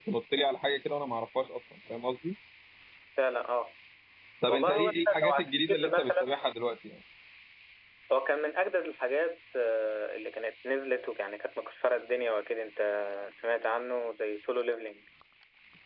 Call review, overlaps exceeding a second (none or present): present